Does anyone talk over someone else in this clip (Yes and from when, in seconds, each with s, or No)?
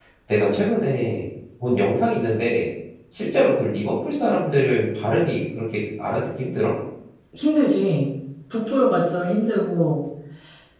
No